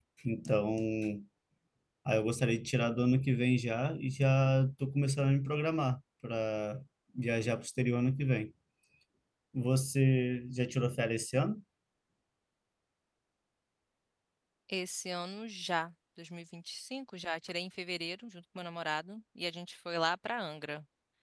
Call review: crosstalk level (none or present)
none